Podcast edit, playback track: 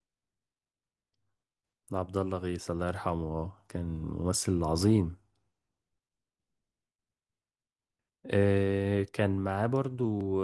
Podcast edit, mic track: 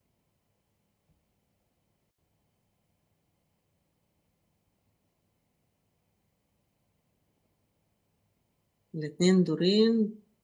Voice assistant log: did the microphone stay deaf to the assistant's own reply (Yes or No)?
Yes